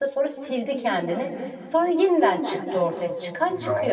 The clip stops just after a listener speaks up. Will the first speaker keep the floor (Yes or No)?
No